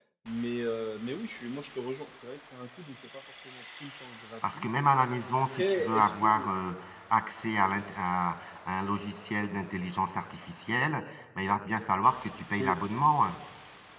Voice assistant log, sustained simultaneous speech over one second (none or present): present